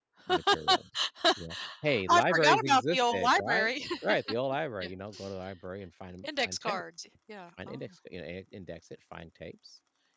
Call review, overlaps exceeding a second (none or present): present